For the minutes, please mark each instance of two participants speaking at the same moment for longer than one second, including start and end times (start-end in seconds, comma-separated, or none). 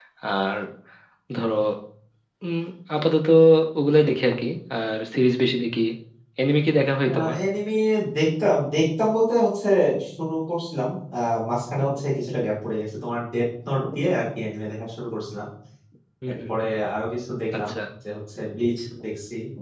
none